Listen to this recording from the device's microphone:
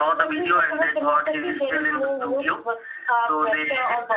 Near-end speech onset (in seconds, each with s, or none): none